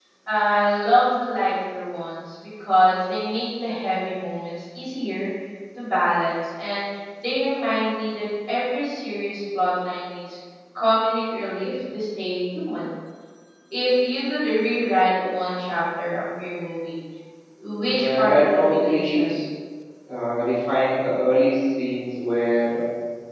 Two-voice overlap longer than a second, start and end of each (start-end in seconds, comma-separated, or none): 17.9-19.3